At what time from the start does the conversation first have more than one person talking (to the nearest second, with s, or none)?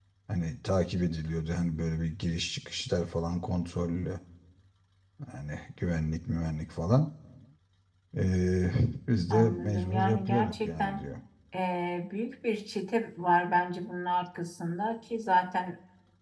9 s